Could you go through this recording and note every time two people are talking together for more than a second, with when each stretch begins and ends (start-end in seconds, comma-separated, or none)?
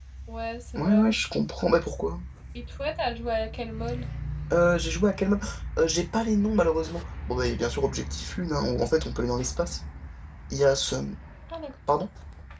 none